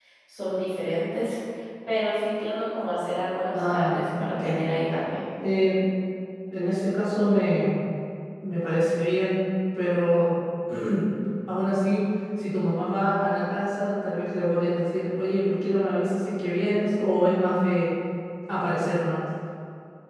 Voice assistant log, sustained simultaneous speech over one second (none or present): present